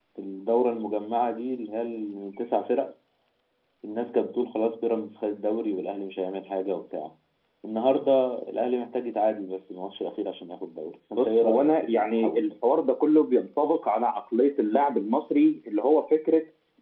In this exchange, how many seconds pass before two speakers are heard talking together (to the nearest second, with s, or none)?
11 s